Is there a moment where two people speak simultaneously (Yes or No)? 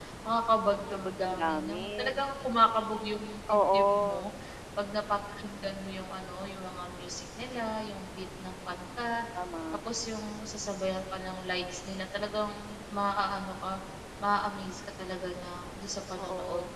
Yes